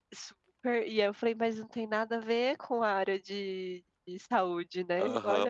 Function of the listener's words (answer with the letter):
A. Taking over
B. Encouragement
A